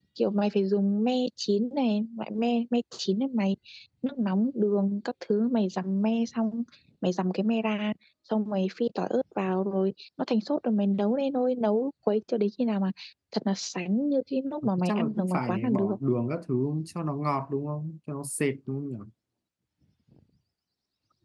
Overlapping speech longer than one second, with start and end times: 14.6-15.9

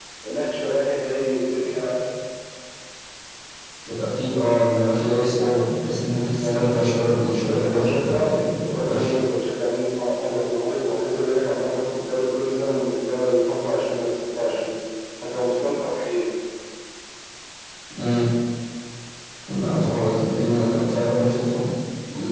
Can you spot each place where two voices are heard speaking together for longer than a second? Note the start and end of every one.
7.5-9.2

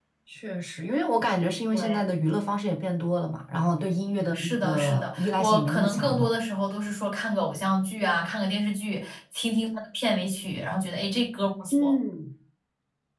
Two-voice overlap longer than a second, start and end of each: 4.3-6.3

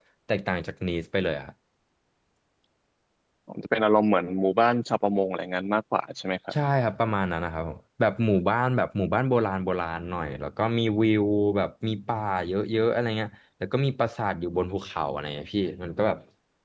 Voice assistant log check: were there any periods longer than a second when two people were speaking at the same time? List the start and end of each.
none

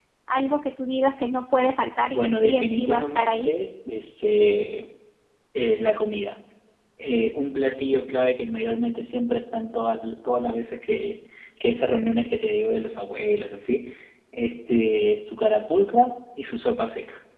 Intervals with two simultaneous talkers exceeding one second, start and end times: 2.1-3.5

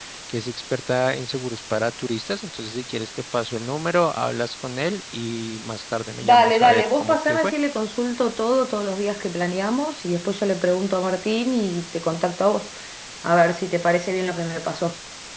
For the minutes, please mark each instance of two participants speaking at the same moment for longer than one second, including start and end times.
6.2-7.5

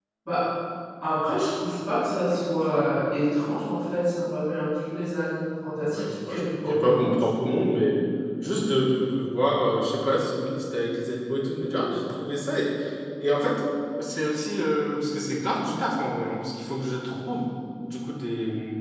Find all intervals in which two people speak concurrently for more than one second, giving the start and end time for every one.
5.8-7.2

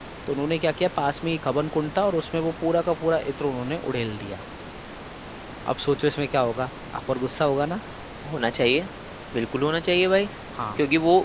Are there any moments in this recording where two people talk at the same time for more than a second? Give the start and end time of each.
none

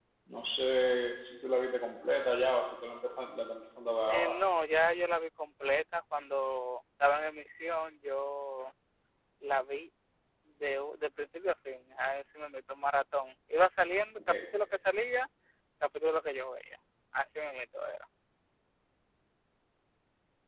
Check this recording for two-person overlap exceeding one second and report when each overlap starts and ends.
none

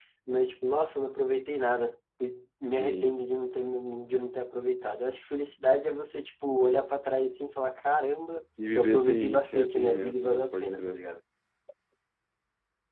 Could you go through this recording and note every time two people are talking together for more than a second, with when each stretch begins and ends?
8.8-11.0

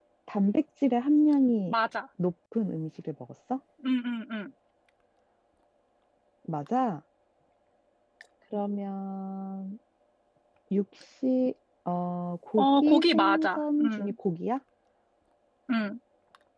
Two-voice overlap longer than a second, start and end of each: 12.6-14.1

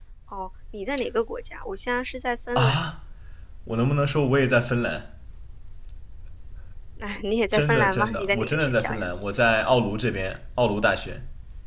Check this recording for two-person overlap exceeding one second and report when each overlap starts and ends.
7.5-9.1

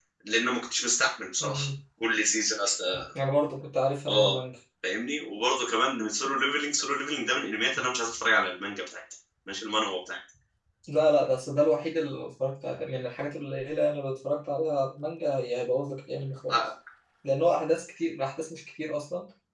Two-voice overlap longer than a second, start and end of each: none

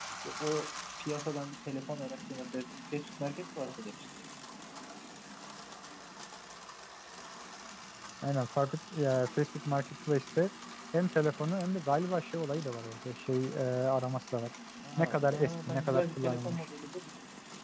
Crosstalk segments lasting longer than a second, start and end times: 15.0-16.6

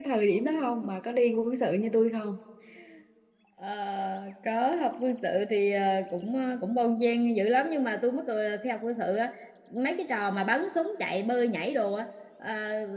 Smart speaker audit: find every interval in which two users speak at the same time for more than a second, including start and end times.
none

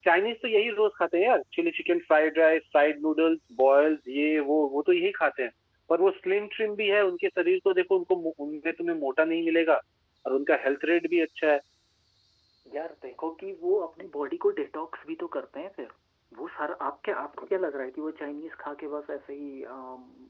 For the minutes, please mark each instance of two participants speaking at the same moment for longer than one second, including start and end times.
none

